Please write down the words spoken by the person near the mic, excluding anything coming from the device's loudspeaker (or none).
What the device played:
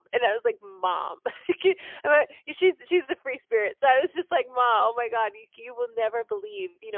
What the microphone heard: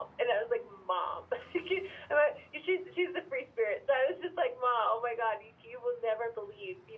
none